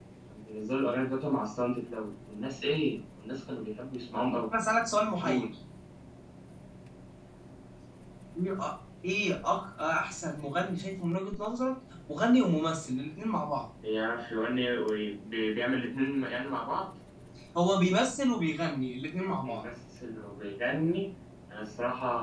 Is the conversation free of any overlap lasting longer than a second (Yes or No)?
Yes